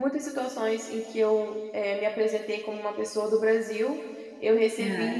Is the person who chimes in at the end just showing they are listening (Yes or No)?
Yes